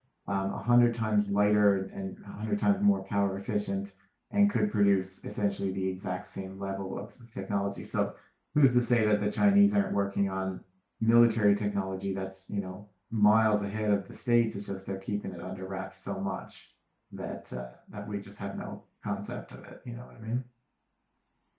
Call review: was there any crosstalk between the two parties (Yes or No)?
No